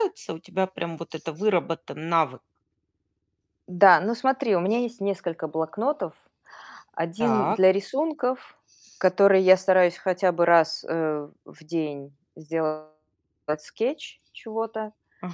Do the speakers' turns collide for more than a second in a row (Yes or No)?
No